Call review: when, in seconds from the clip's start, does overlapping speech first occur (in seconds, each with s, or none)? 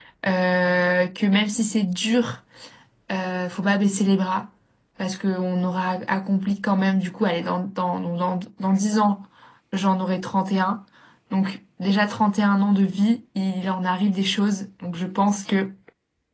none